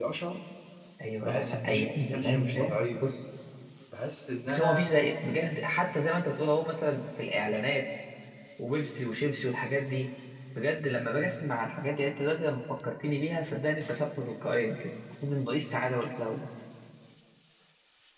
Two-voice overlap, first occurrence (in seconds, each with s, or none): 1.2 s